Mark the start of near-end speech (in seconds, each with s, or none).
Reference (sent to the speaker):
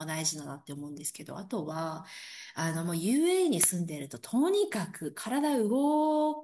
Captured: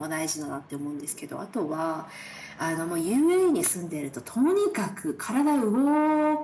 none